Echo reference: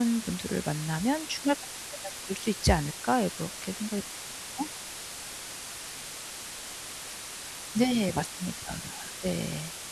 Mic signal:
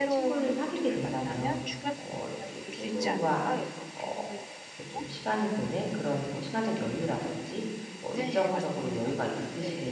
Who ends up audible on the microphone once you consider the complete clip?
both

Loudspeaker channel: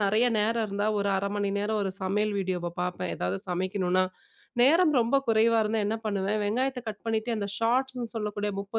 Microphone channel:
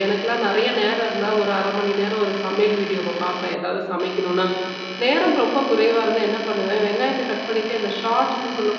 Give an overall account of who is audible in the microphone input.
echo only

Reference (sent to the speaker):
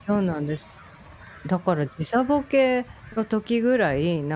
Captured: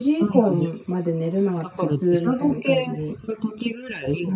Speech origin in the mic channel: both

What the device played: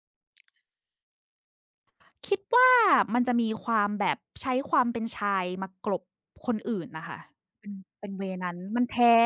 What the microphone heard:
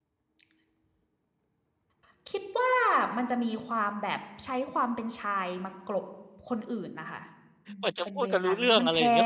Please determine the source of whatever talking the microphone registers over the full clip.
both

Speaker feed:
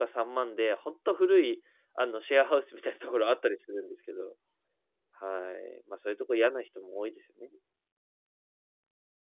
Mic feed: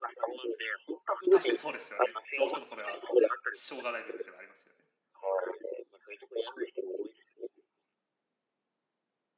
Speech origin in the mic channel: both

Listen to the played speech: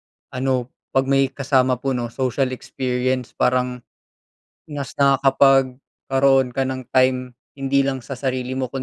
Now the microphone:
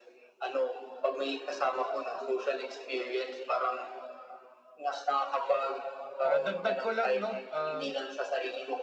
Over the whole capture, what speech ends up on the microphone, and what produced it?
both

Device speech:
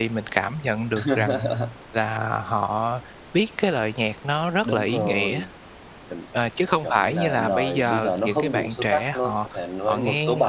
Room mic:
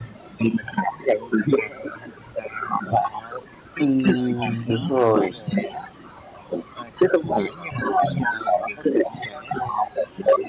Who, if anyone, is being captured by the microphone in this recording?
both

